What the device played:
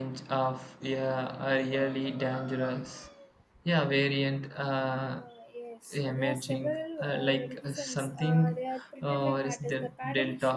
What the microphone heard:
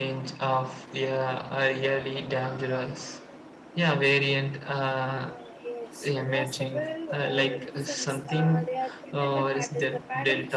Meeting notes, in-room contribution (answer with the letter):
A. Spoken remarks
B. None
B